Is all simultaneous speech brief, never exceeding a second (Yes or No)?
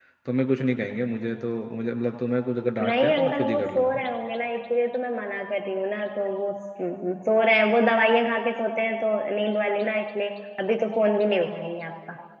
No